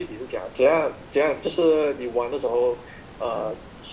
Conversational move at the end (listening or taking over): listening